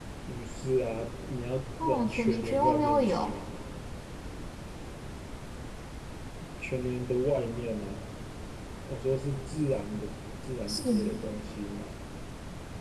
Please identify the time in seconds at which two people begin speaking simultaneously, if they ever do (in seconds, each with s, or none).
1.8 s